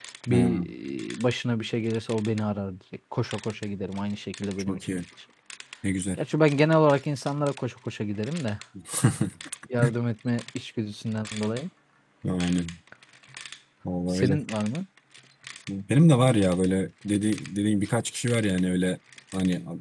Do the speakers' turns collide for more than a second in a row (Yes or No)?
No